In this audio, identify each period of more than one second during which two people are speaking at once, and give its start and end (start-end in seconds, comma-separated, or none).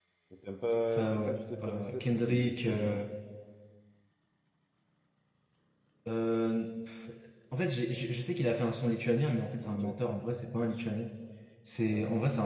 1.0-3.0